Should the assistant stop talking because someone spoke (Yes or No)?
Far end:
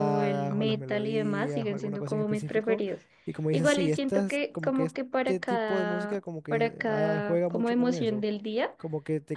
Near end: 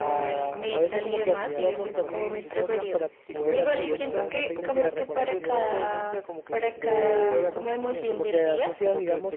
Yes